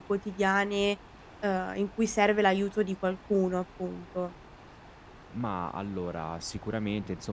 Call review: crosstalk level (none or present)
none